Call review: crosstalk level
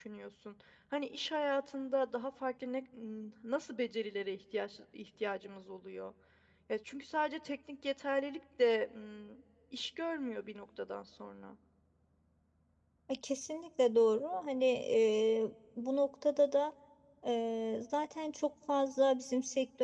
none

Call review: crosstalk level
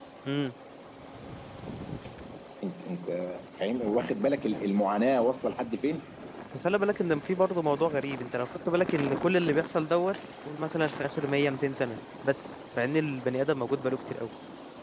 none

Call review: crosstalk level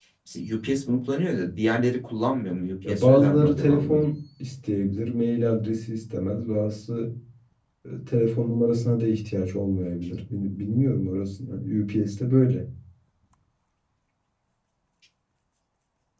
present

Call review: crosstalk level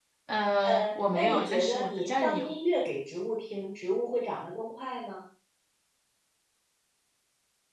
present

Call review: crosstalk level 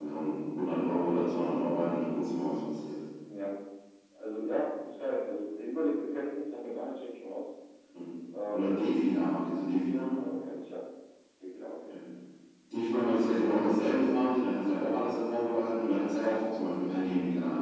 none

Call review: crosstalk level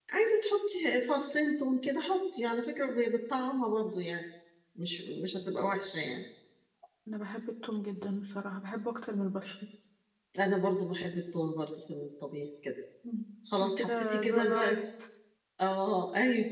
present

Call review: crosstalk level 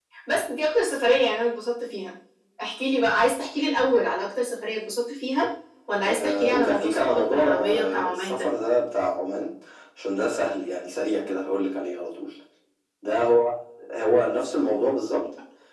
present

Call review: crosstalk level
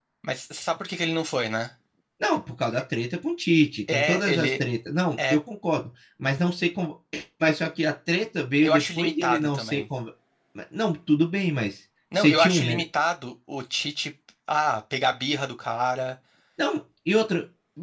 present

